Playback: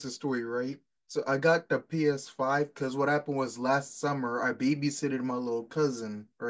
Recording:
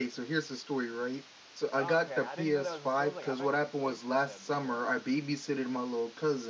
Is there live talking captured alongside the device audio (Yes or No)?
Yes